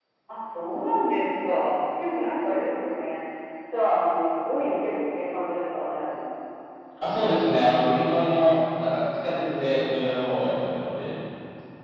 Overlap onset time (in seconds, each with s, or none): none